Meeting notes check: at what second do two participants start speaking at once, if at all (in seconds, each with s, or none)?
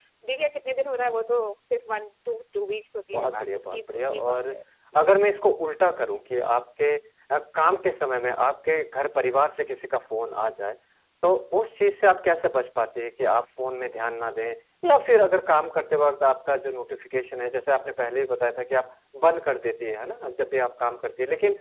3.1 s